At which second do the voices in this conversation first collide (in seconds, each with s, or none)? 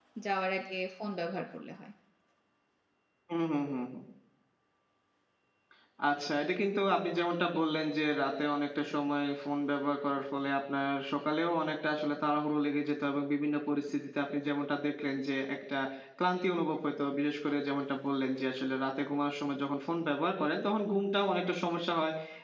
none